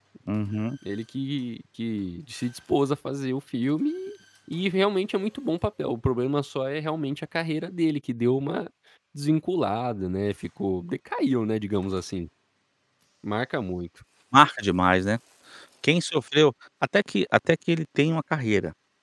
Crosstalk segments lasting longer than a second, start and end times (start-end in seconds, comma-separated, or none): none